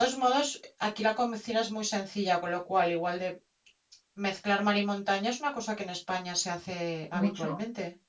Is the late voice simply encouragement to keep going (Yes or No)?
No